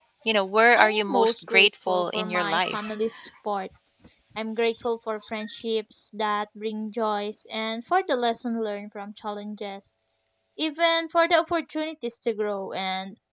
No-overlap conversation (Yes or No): No